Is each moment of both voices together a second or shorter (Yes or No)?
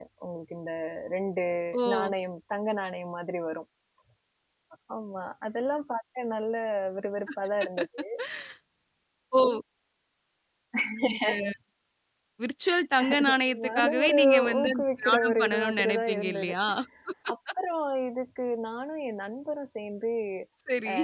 No